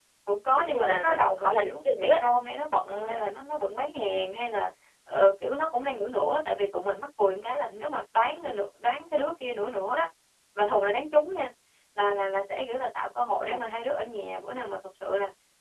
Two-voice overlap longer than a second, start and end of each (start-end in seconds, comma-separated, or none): 0.6-2.2